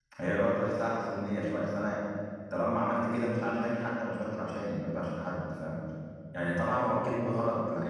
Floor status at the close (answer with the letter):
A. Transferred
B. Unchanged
B